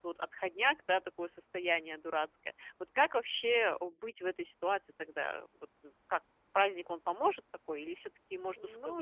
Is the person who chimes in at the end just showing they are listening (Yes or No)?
No